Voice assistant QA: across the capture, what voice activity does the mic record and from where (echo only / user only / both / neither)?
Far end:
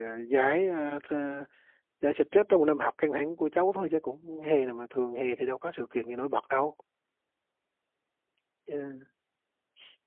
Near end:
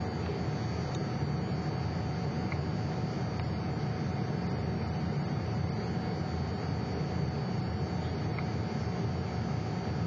neither